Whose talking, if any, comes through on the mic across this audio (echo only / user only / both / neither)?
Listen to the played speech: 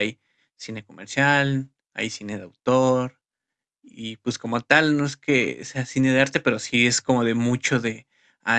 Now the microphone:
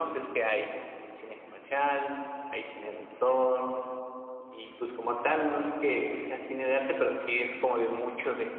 echo only